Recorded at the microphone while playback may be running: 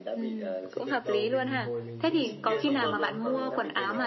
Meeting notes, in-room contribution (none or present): present